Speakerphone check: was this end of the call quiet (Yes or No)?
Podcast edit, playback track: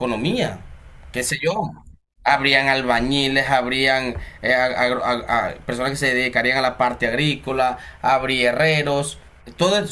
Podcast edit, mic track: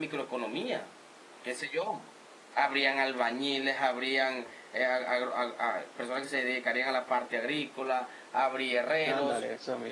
No